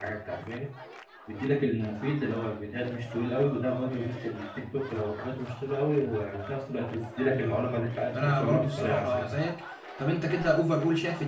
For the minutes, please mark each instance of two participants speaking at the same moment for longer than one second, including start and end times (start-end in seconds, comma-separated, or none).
8.1-9.4